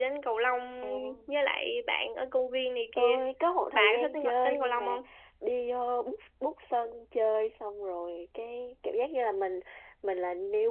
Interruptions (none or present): present